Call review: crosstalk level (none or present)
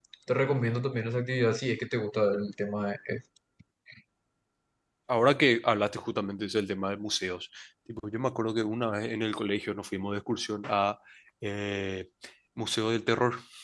none